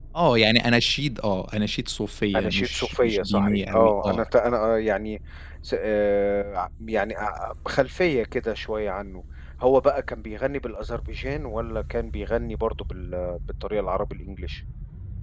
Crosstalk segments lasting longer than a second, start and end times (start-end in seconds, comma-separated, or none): 2.4-4.2